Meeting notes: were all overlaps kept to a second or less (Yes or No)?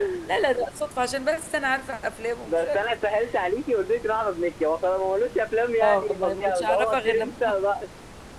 No